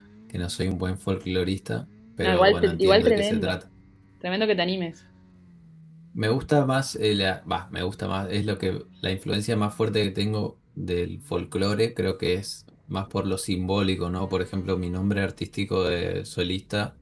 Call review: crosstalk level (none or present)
present